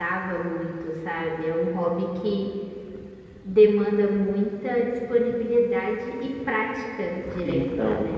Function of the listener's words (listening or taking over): taking over